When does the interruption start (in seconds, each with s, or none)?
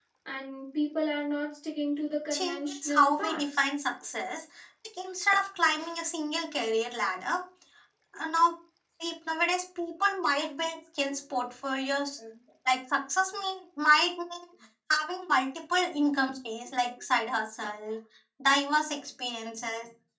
2.3 s